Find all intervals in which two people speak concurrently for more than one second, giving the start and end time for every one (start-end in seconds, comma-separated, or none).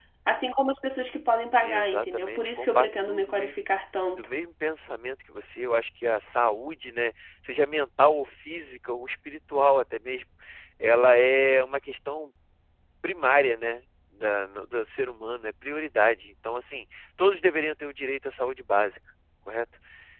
1.6-3.6